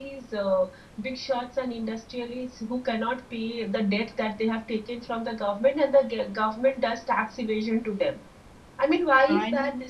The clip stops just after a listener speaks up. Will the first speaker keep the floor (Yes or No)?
Yes